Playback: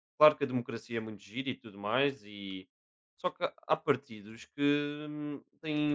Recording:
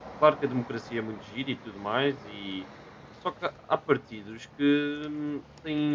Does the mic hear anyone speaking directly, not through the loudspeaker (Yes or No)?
No